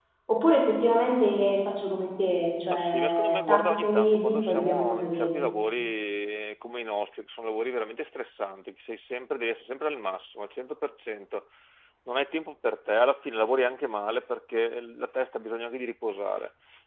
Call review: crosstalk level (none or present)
present